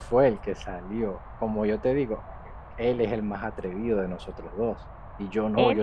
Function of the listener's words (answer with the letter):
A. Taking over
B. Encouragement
B